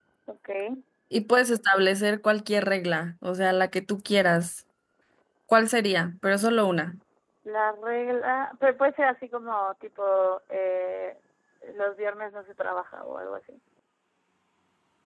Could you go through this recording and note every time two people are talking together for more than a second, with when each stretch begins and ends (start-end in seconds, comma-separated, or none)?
none